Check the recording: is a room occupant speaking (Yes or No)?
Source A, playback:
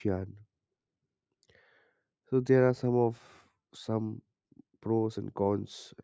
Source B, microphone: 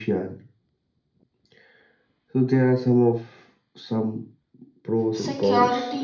Yes